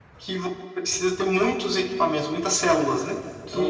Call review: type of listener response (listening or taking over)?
taking over